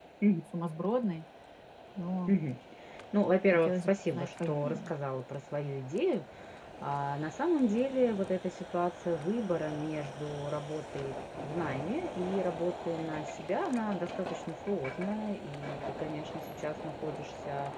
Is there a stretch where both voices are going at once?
Yes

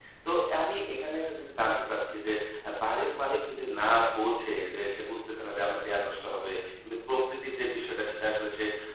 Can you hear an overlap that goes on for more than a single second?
No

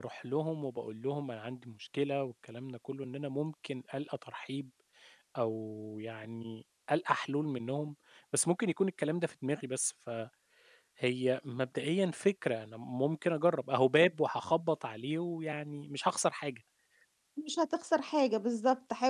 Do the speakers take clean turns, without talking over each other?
Yes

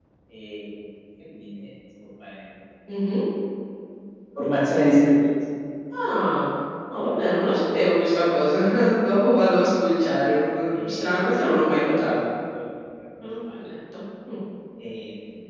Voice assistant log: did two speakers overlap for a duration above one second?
Yes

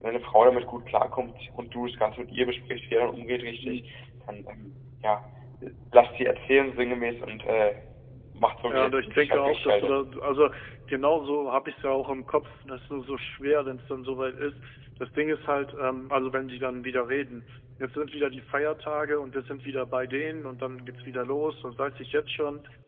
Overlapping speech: Yes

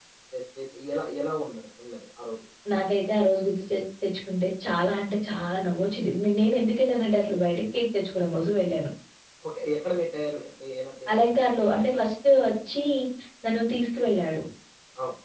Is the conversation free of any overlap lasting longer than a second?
Yes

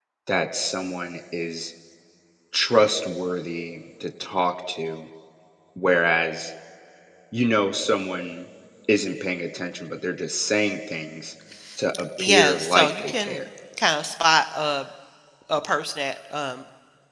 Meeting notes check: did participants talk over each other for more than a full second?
Yes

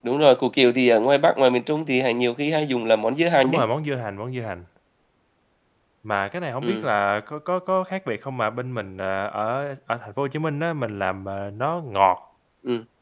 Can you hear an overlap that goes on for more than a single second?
No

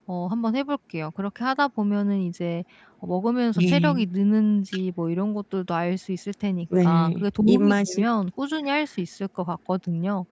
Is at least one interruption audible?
Yes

